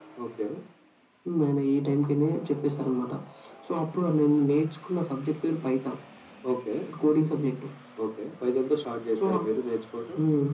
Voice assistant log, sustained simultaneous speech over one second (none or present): none